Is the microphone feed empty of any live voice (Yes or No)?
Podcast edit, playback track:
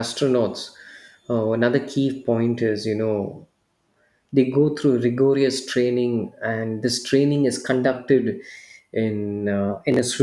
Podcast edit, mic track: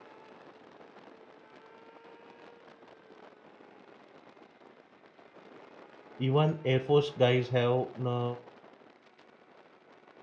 No